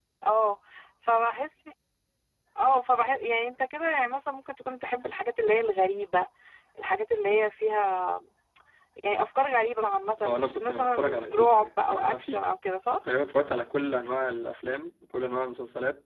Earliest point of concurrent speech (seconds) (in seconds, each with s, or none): 10.2 s